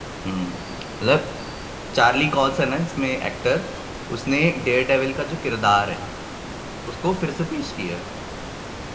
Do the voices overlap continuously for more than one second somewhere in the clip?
No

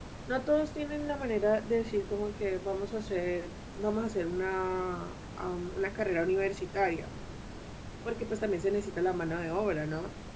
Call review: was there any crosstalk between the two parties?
No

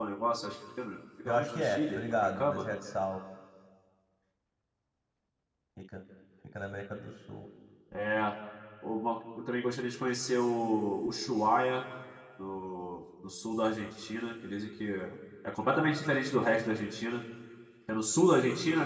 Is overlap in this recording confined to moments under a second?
No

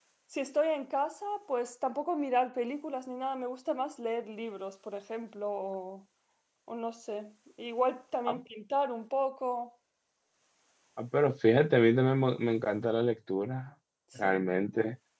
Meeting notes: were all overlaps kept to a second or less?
Yes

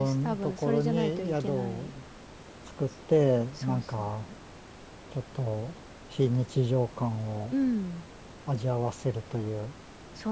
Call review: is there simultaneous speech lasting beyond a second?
Yes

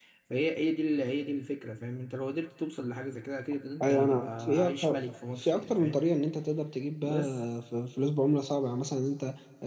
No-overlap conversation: No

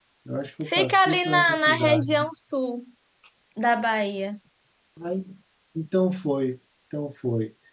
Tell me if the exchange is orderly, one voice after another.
No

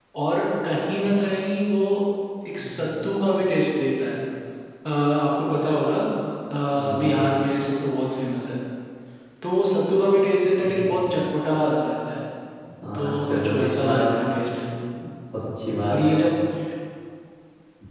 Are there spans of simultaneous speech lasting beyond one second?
Yes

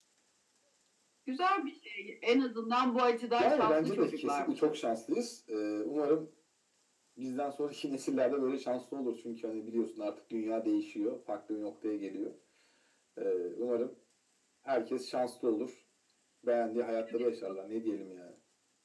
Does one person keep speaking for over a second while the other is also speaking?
Yes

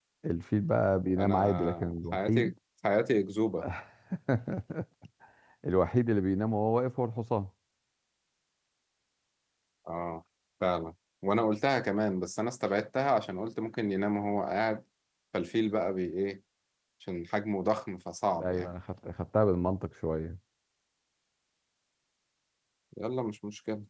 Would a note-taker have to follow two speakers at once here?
Yes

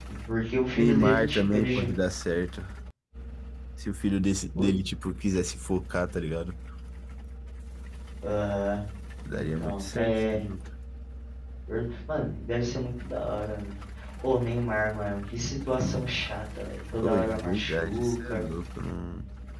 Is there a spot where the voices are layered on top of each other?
Yes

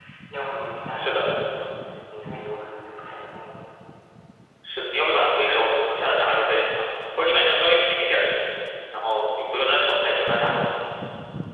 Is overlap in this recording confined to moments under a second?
Yes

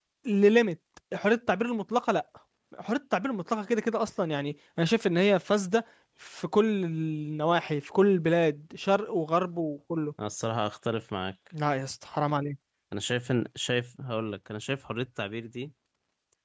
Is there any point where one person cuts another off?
No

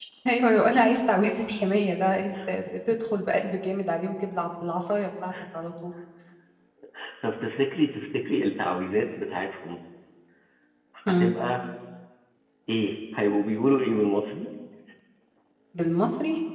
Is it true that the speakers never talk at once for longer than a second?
Yes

